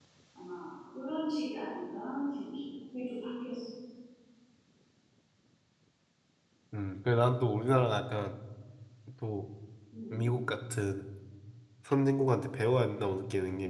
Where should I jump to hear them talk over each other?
none

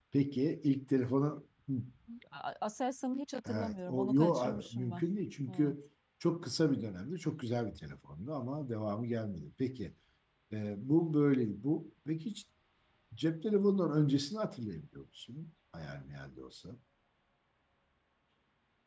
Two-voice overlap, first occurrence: 3.4 s

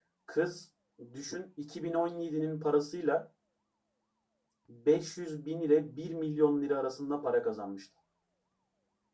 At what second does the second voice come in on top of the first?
none

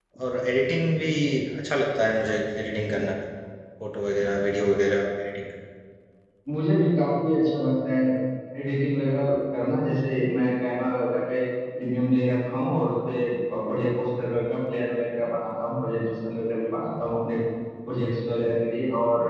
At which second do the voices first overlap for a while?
none

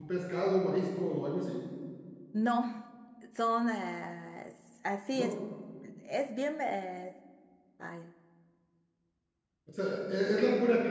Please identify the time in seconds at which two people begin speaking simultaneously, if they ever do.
none

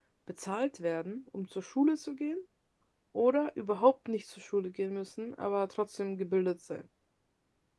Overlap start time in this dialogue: none

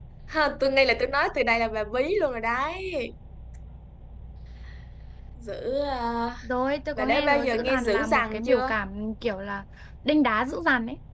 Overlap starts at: 7.0 s

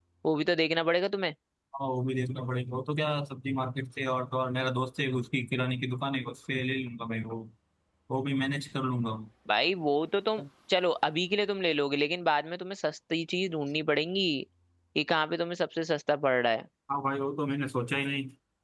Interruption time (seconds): none

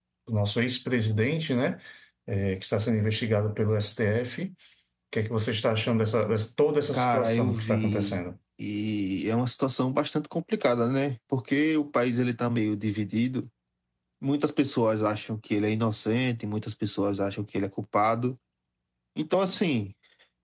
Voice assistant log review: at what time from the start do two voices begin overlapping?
6.9 s

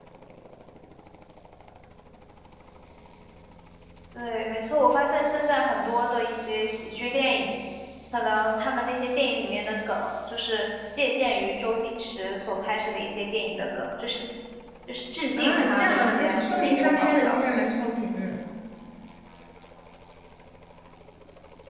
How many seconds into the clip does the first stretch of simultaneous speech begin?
15.4 s

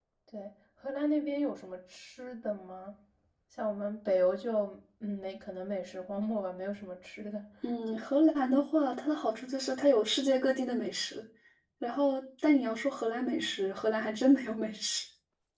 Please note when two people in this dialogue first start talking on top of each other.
none

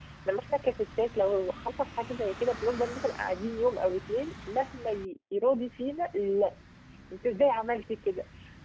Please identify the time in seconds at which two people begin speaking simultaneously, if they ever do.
none

